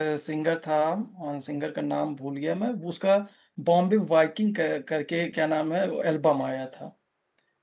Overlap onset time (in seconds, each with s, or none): none